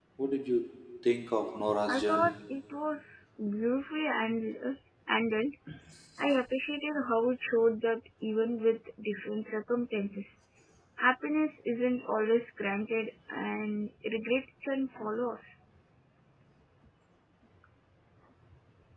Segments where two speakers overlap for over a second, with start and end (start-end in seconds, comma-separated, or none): none